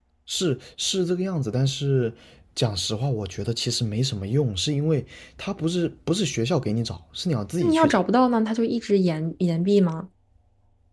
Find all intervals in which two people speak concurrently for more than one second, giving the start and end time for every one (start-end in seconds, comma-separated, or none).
none